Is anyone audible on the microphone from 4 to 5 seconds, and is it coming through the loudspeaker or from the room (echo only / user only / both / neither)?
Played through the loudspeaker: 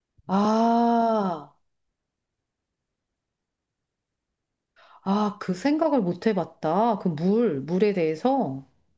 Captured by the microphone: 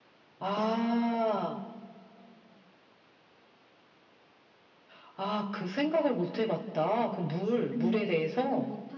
neither